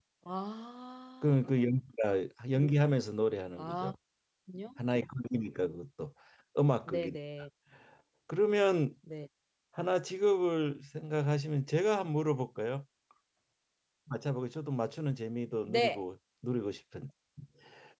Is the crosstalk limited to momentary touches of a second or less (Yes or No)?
Yes